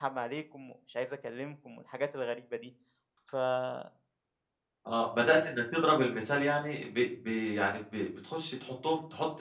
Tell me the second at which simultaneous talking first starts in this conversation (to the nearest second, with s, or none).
none